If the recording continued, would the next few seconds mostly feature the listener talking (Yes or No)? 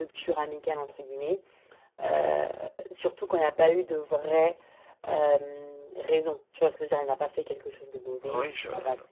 Yes